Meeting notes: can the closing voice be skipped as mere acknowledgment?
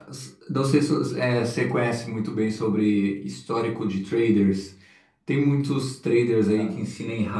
Yes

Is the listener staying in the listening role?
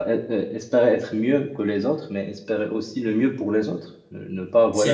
Yes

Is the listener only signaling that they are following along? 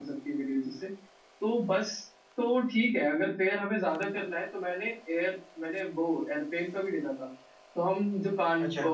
Yes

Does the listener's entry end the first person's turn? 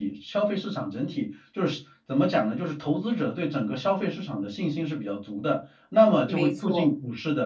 No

